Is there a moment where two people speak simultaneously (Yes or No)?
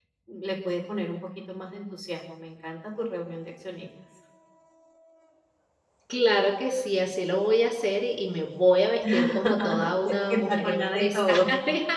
Yes